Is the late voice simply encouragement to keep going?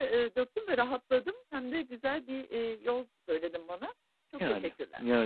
No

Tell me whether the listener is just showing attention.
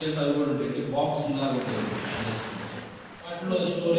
Yes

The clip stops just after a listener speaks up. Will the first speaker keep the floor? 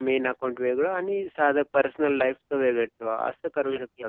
No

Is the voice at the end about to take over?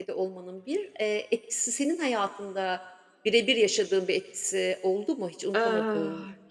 Yes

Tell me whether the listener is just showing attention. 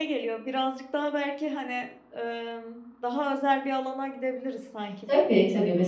No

